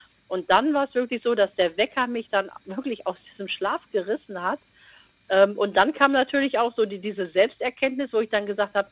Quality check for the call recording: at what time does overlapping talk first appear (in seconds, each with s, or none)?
none